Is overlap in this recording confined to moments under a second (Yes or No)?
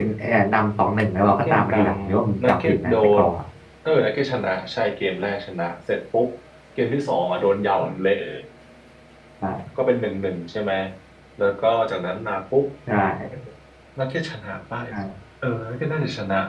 No